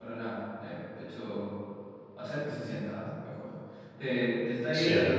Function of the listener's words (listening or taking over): listening